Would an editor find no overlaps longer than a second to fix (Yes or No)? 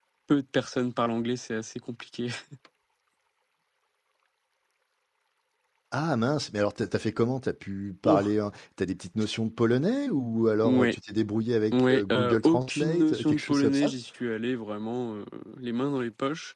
No